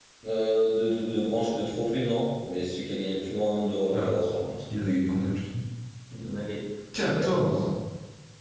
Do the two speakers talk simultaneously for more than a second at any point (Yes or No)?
No